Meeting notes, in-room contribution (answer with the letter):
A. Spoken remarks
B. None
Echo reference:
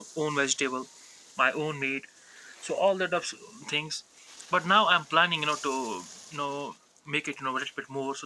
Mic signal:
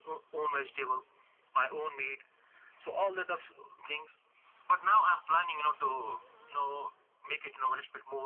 B